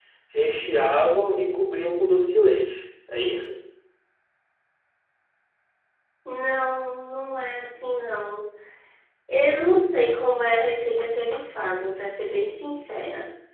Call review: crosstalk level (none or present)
none